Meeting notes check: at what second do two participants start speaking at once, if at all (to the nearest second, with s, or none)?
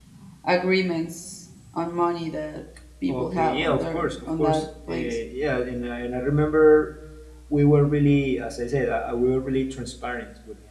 3 s